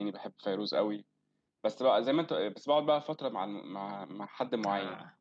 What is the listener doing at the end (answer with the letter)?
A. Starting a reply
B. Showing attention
B